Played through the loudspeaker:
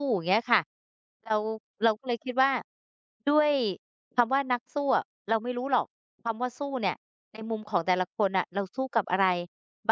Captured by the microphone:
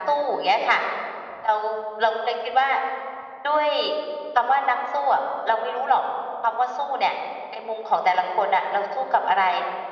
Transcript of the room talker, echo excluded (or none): none